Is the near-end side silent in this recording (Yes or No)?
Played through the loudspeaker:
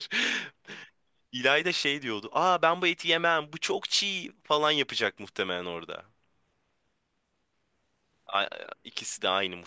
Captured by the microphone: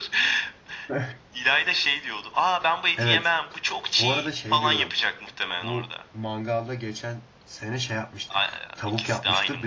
No